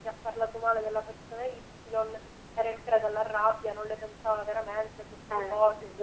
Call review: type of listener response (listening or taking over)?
taking over